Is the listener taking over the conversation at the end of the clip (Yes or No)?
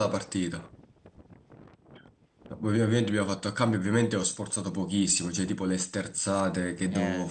No